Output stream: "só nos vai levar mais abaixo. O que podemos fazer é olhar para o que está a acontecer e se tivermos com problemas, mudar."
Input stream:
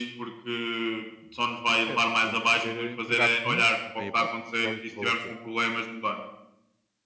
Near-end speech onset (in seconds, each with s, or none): 1.8 s